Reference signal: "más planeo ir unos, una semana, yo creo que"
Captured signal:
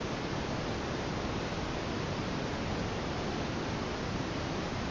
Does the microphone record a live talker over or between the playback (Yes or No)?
No